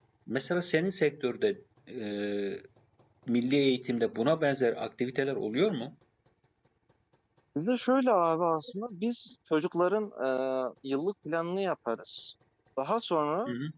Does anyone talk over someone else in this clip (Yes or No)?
No